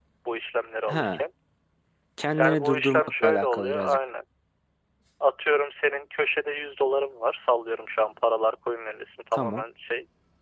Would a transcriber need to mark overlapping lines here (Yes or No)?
Yes